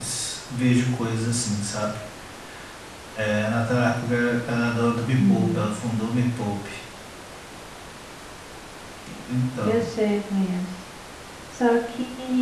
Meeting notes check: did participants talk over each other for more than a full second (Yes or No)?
No